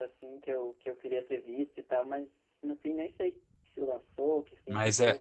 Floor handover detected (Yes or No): Yes